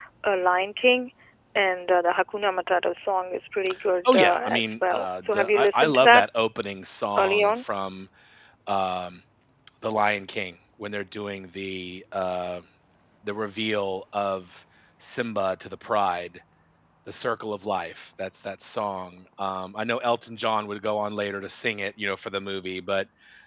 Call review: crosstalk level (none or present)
present